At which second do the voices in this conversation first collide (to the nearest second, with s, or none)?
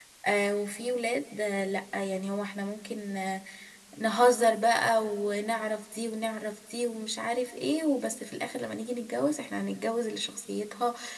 none